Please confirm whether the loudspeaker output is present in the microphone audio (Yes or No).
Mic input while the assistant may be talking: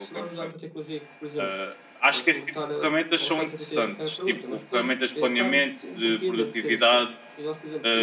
Yes